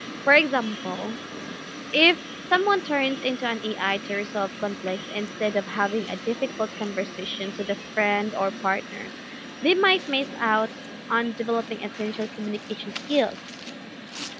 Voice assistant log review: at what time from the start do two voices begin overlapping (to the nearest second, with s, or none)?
none